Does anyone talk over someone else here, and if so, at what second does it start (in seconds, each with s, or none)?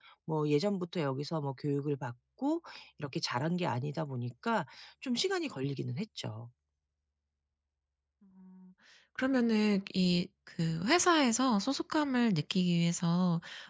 none